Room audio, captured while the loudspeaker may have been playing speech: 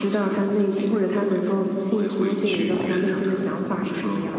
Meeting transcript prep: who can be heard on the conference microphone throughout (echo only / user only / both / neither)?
echo only